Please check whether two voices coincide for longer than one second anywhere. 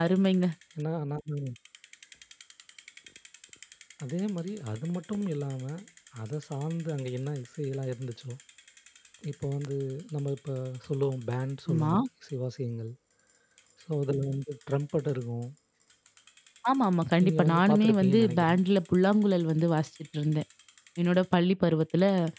Yes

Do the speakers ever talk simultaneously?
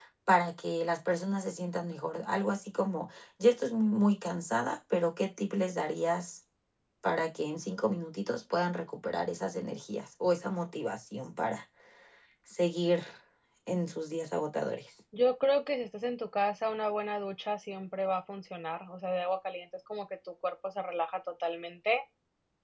No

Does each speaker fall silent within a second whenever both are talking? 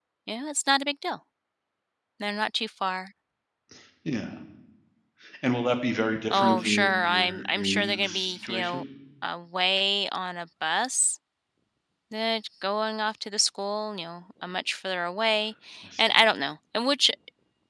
No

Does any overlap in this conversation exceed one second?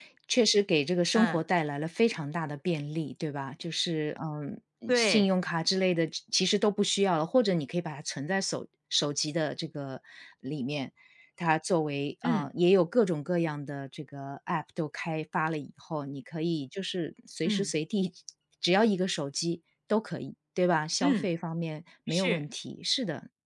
No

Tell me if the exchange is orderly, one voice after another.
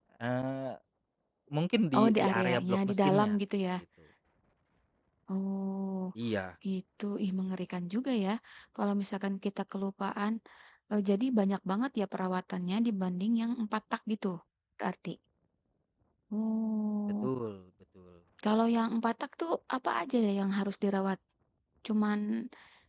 No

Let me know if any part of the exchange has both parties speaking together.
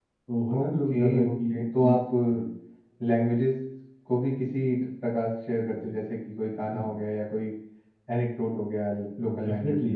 Yes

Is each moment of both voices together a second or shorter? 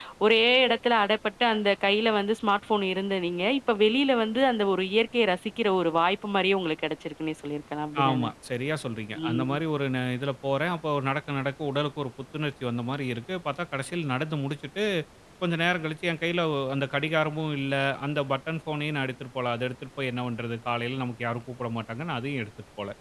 Yes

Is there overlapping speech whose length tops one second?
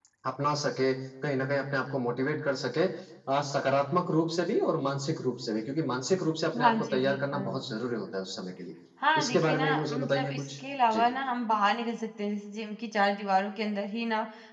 Yes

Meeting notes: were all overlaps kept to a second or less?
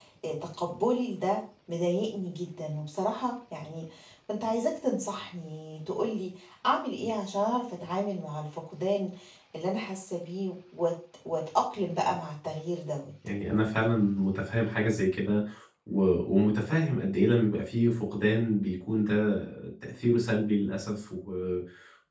Yes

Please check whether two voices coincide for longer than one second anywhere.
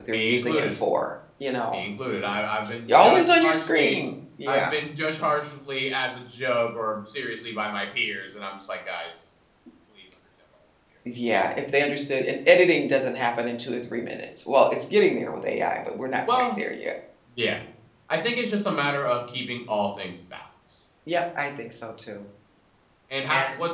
Yes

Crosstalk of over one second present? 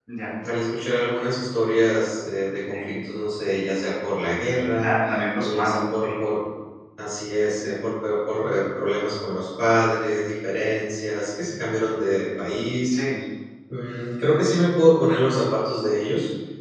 No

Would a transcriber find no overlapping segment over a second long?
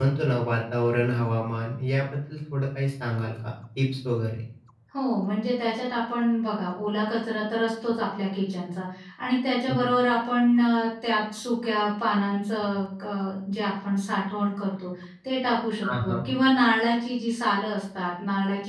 Yes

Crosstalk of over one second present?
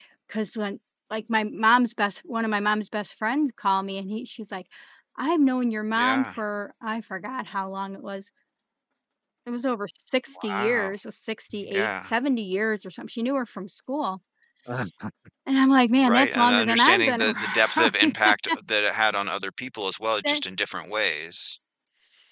Yes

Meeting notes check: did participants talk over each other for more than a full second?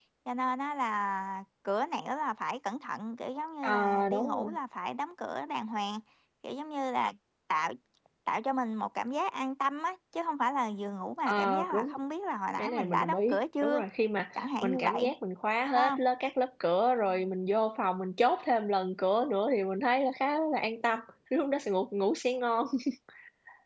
Yes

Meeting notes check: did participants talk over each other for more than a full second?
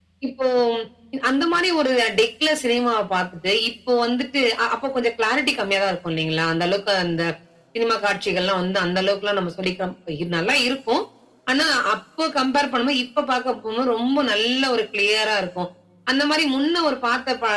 No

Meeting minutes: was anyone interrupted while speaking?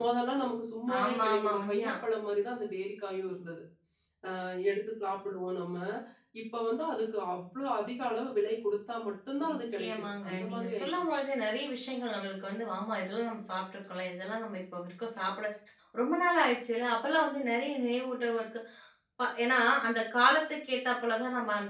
Yes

